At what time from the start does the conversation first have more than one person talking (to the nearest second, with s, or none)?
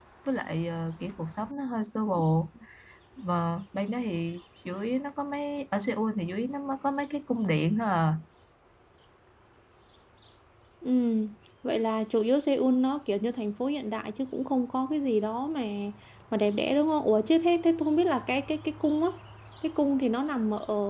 none